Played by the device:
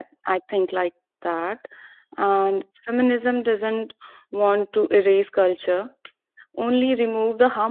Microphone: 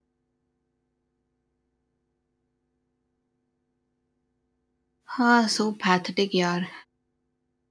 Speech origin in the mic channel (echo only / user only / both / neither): user only